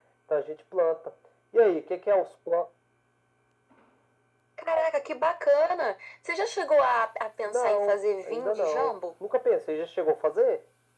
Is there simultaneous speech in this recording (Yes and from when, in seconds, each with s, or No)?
Yes, from 7.4 s